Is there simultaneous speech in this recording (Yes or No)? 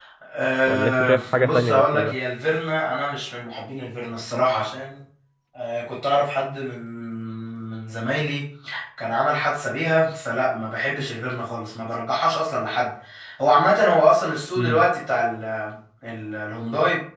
Yes